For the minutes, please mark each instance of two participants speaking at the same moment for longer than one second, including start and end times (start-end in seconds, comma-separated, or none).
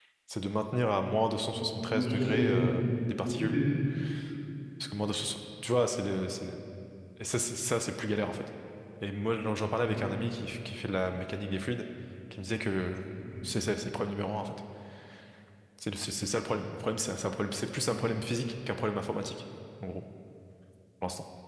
1.5-2.9